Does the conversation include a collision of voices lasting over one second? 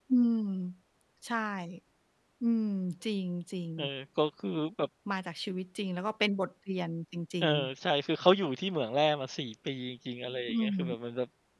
No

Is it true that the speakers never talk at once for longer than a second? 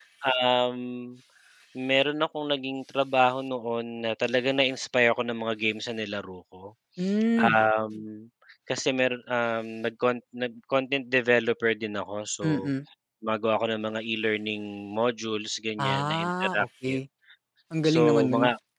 No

